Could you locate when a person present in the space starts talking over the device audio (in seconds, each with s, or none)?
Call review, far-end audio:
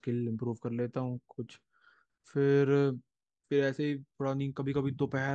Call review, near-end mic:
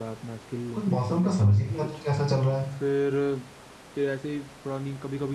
0.7 s